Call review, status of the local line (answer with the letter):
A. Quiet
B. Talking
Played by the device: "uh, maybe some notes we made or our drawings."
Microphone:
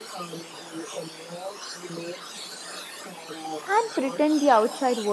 B